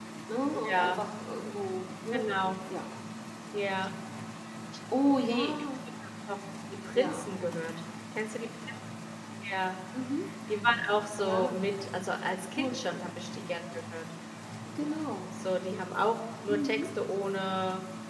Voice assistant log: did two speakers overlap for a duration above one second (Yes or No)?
No